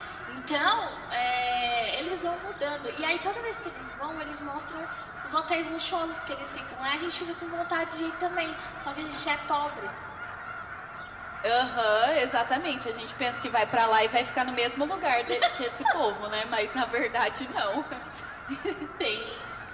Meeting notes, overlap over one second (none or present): none